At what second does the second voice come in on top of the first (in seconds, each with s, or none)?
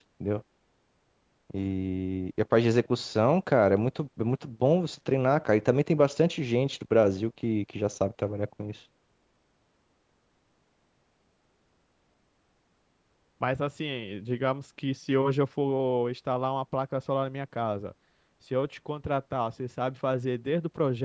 none